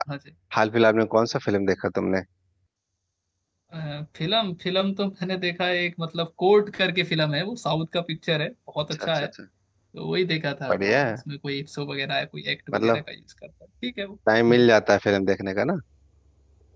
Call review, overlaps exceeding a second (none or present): none